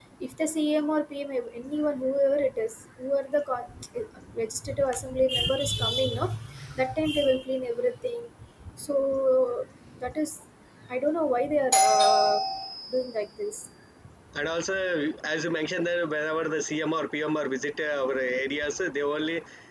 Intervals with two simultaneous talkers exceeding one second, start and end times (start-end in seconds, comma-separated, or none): none